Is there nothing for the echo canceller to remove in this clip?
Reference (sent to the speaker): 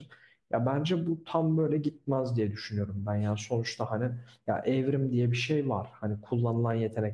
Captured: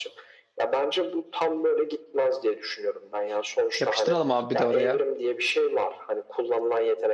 No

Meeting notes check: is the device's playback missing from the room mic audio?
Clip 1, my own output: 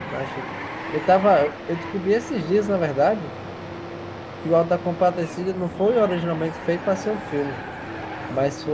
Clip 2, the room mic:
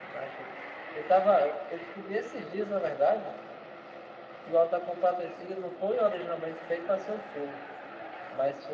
No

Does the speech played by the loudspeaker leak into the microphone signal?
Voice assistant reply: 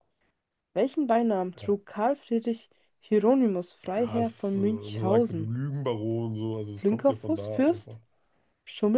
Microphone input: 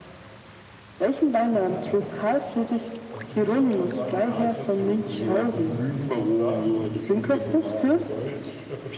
Yes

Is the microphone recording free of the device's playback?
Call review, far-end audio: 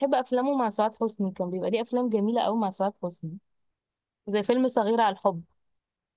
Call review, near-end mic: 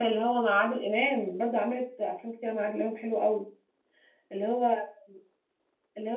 Yes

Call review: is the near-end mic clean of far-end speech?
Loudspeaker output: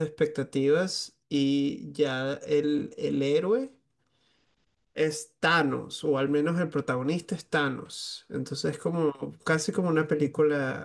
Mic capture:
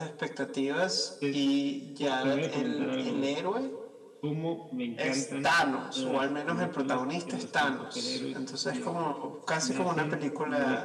No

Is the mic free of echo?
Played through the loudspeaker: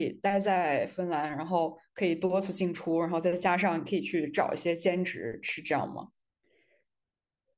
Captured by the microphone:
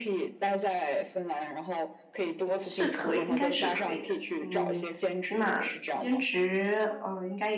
No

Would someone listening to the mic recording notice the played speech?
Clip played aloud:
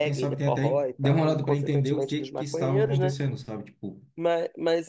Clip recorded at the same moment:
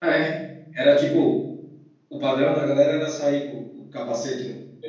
No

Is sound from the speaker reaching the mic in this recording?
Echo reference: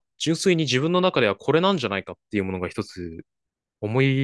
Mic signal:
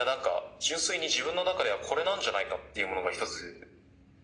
Yes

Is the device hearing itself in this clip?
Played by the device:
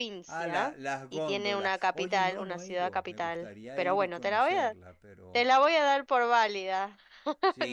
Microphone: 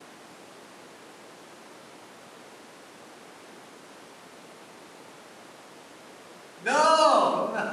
No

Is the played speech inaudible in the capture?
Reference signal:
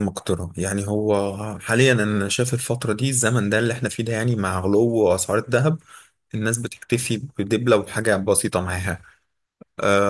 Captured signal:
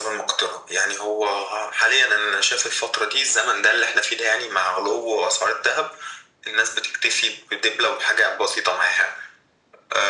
No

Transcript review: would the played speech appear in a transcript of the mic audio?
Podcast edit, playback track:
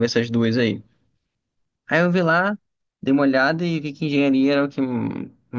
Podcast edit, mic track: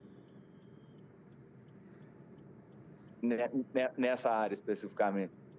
No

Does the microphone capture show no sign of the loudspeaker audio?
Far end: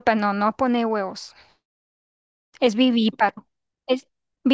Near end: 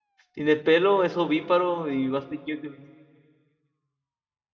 Yes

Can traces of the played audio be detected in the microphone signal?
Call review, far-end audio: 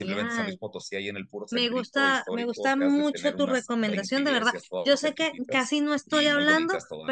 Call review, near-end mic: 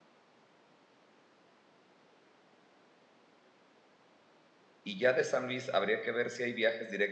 No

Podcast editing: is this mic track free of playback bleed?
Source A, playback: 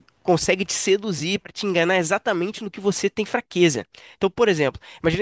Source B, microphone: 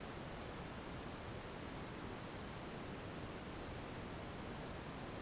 Yes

